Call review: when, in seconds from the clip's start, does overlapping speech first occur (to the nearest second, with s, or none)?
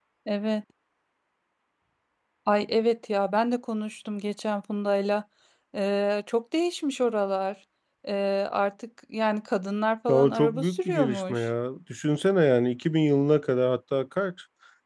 10 s